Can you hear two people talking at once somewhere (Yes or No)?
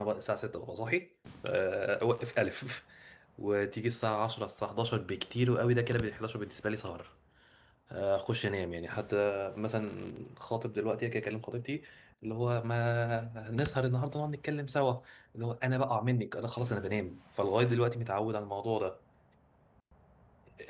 No